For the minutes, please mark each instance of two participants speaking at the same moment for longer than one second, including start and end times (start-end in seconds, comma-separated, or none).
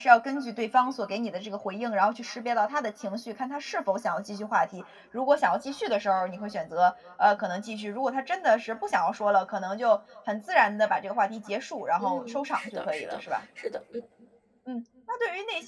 12.0-13.4